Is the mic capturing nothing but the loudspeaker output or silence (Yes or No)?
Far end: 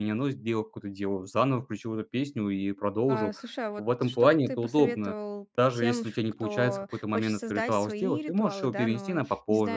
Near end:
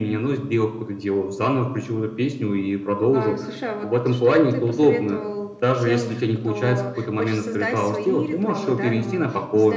Yes